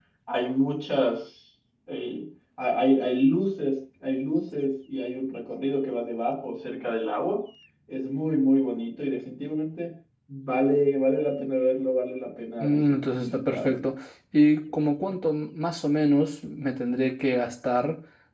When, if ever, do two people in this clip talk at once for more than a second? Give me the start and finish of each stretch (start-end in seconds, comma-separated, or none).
12.6-13.8